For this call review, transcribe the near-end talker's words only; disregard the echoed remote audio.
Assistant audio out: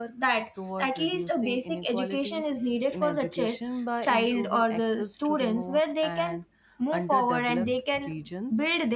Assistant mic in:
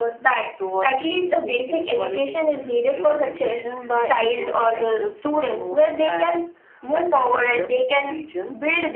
none

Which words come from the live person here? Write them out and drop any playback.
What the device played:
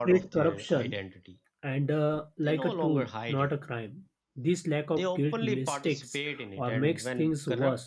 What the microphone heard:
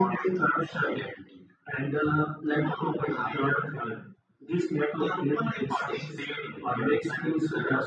none

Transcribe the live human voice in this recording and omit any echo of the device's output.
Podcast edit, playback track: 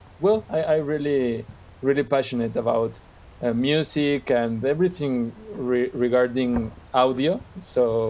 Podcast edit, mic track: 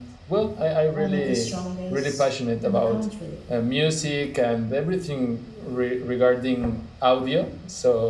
one of the strongest in the country

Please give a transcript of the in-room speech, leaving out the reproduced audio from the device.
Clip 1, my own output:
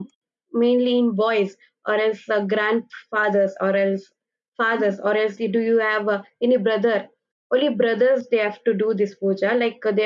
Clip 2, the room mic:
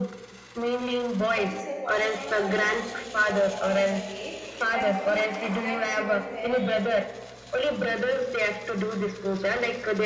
that is a prophet Muhammad. It was, she, he was born on the day, and full enlightenment was there.

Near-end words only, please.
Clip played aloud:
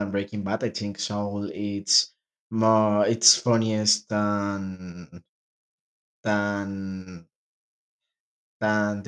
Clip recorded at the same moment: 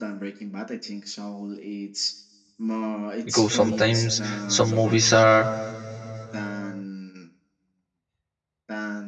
because sometimes some movies are

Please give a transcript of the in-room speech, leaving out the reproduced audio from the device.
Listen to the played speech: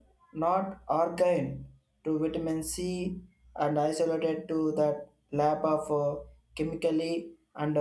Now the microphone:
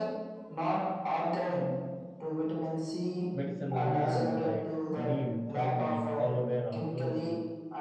medicinal plants like neem, turmeric, aloe vera, tulsi.

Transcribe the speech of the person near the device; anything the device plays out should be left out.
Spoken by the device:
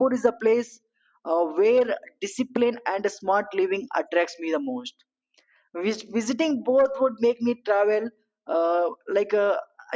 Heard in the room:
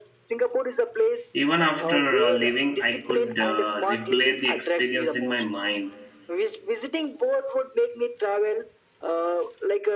Even after uh, leaving, I could uh, replay the experience in my mind,

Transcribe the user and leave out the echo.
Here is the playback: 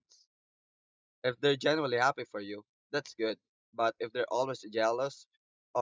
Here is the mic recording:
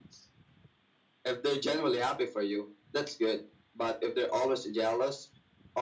none

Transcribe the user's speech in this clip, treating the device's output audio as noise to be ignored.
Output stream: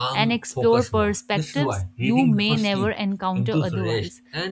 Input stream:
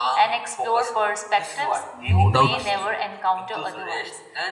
No doubt

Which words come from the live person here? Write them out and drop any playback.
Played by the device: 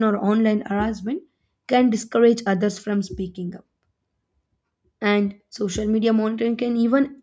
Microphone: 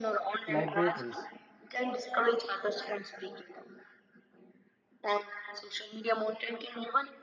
libraries,

